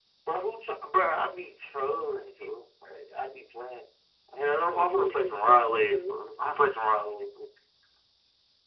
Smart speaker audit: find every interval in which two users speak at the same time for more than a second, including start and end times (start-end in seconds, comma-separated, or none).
4.5-6.2